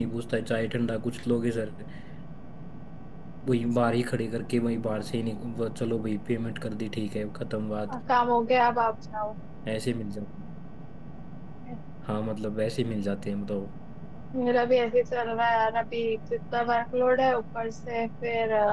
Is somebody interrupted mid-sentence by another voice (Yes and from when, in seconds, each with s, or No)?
No